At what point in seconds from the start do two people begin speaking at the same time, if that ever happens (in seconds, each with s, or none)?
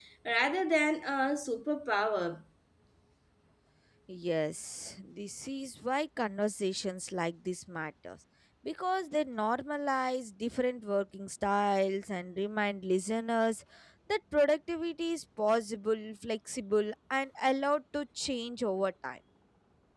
none